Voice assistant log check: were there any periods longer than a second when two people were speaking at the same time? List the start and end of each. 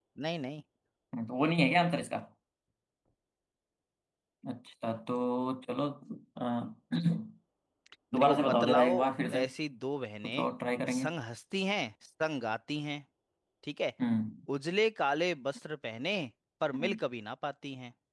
8.2-9.4

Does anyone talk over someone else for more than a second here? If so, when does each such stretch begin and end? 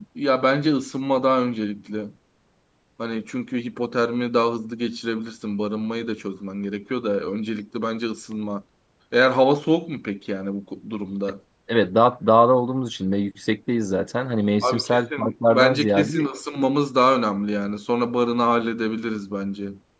14.6-16.3

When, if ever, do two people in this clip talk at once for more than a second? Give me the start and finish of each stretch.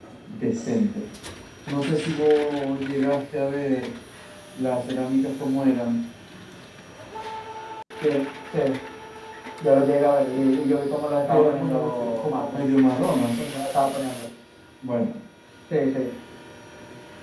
11.3-12.6

